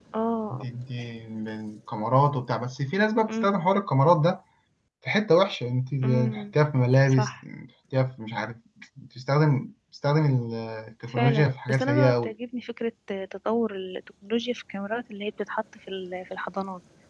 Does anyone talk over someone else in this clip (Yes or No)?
Yes